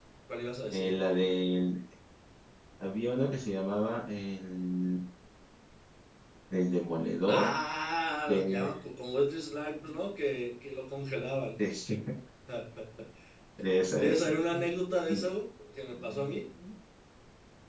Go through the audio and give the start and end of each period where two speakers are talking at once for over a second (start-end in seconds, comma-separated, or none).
none